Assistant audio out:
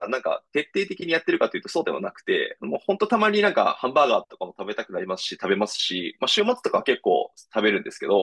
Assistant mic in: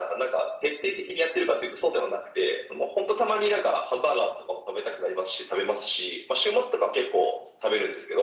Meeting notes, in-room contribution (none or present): none